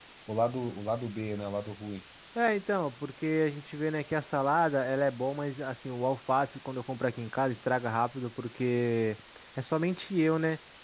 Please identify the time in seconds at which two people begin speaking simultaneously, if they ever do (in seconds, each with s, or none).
none